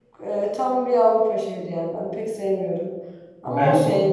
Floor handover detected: No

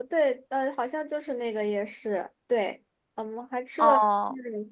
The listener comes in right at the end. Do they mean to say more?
No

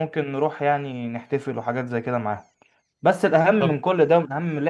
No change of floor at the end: Yes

